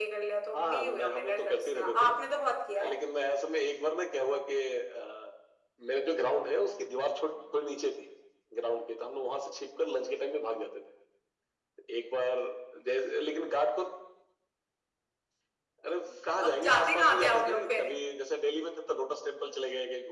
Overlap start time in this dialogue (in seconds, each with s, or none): 0.5 s